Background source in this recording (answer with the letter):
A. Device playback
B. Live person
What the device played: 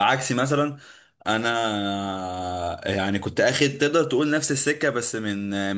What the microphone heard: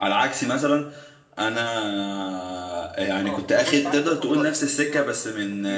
B